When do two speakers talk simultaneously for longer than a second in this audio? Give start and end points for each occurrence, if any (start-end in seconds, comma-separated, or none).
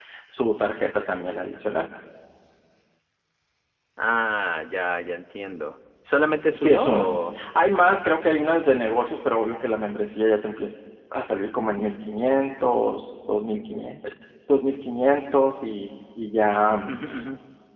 none